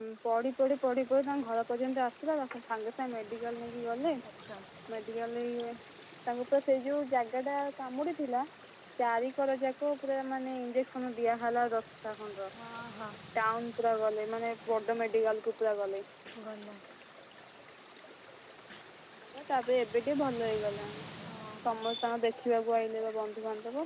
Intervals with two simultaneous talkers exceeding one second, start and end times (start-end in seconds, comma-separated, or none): none